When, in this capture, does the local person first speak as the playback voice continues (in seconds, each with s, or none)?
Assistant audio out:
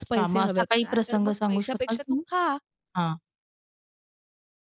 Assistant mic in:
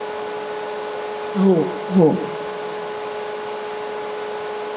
1.4 s